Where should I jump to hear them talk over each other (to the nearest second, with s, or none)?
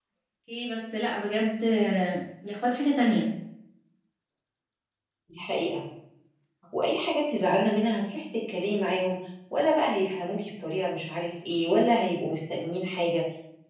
none